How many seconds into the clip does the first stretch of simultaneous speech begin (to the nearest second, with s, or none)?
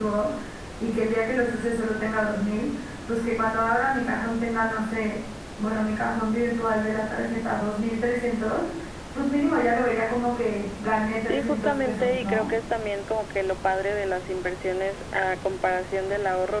11 s